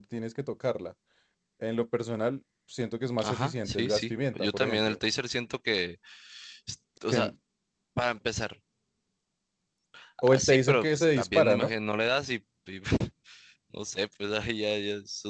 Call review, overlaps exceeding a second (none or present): present